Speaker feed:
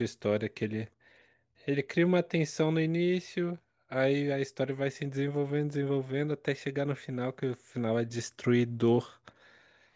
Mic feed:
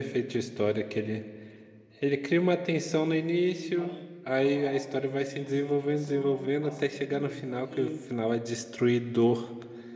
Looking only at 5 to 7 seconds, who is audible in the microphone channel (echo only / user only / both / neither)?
both